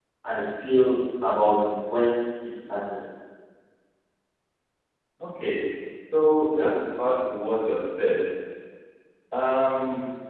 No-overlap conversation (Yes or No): Yes